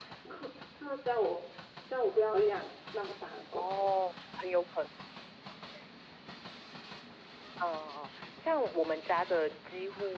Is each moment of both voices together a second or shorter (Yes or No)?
Yes